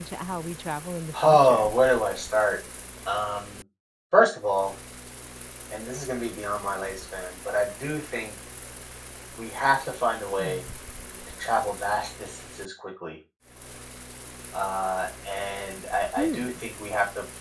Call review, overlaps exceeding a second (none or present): none